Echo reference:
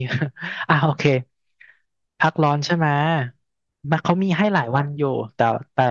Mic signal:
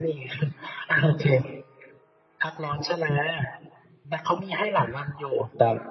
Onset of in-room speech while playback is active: none

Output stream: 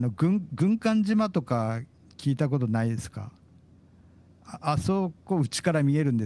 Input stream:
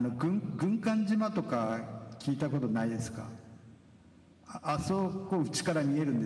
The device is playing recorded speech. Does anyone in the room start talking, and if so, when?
none

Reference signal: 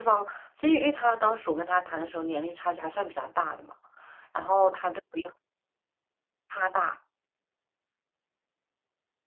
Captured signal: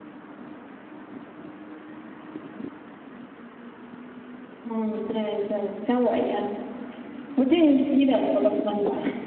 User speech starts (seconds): 4.6 s

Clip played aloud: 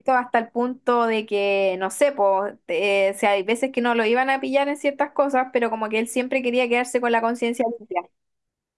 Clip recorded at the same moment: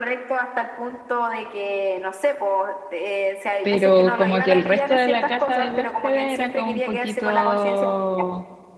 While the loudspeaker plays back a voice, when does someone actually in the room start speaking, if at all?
3.6 s

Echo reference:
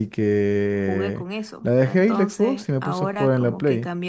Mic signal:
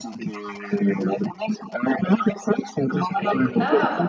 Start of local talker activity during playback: 3.1 s

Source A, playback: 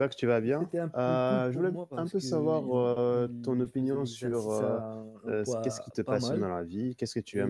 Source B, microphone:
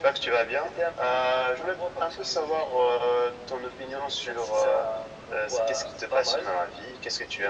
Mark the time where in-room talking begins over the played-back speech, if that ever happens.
none

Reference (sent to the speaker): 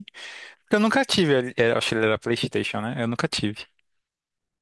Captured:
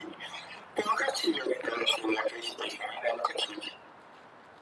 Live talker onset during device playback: none

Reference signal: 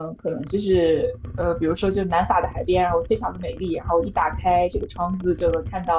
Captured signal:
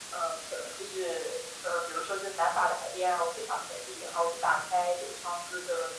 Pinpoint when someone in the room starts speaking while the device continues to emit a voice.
none

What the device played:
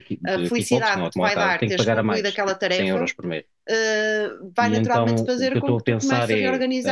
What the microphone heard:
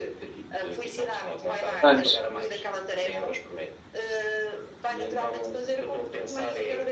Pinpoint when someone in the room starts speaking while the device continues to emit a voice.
1.8 s

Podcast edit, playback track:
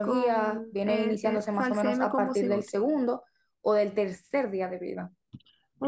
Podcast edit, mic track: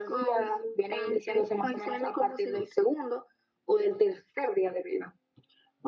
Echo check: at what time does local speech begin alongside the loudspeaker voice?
none

